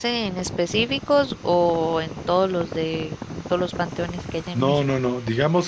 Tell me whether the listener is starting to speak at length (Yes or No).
Yes